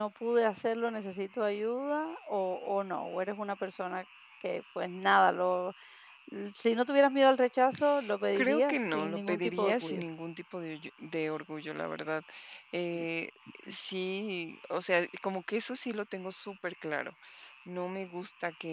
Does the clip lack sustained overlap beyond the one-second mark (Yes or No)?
No